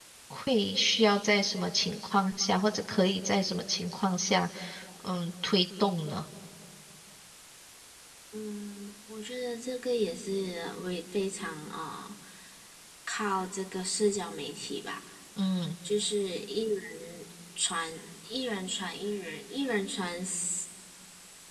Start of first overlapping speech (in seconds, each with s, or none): none